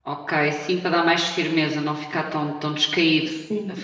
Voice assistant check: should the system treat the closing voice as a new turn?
Yes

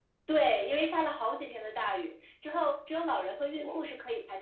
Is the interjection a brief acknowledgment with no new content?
Yes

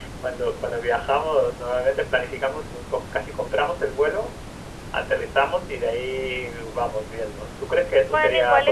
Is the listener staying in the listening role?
No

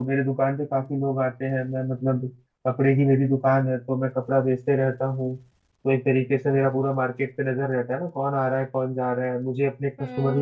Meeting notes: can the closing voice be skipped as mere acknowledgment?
No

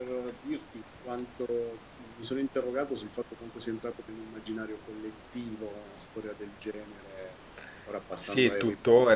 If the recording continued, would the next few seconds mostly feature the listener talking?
Yes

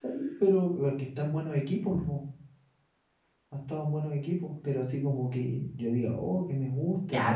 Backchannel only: No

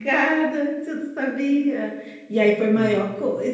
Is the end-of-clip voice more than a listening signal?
No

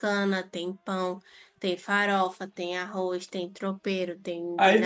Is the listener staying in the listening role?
No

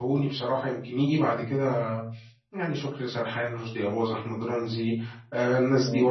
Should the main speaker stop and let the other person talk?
No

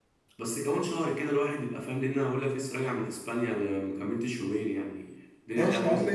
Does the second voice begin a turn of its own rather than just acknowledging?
Yes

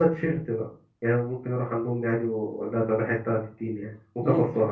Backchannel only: No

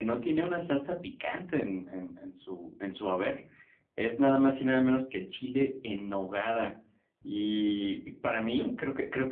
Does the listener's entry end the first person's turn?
No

